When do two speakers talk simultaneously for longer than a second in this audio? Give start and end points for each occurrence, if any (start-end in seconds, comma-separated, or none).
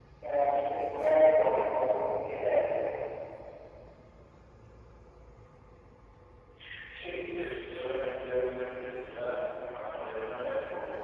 none